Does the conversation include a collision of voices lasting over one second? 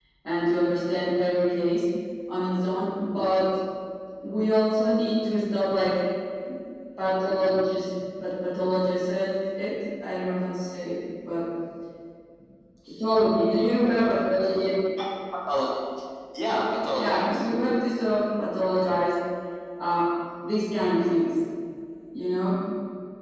No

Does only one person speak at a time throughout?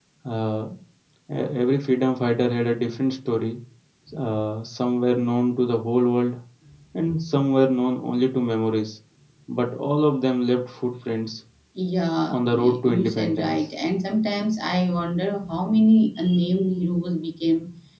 No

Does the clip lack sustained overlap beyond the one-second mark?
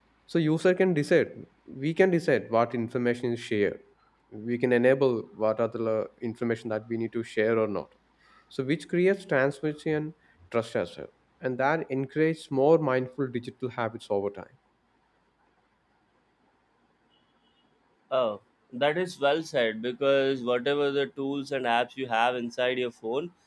Yes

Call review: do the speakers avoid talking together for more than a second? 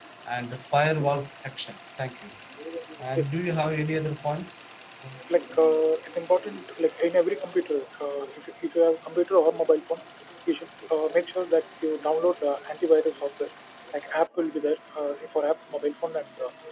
Yes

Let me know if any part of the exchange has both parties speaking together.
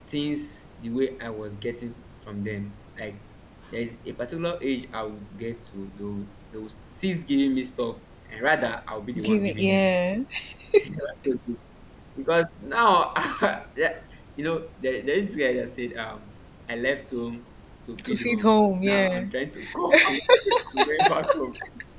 Yes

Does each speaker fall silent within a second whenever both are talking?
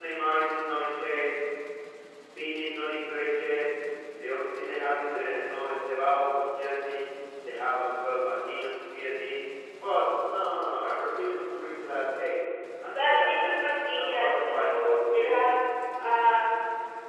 No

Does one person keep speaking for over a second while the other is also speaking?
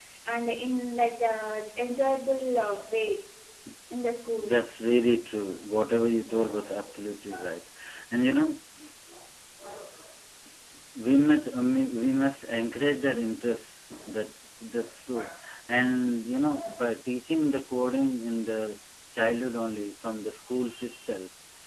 No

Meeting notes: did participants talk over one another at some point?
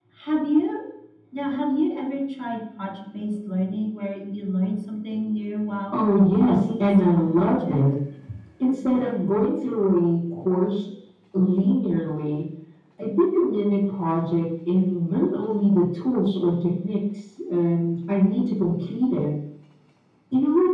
Yes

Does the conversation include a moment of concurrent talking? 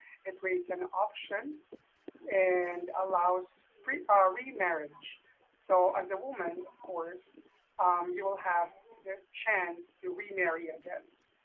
No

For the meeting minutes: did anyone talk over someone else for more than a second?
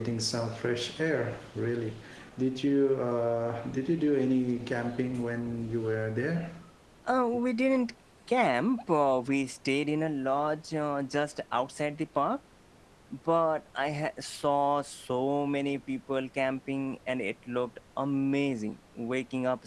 No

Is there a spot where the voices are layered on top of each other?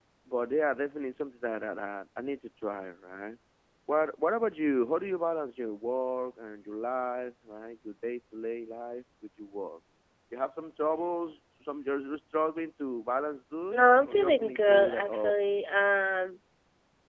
Yes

